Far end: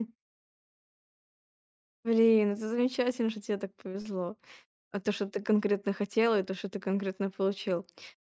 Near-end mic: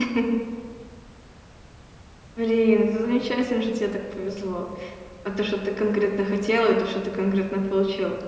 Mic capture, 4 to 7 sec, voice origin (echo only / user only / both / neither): echo only